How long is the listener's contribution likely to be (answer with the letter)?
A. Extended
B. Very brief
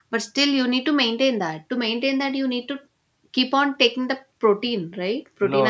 A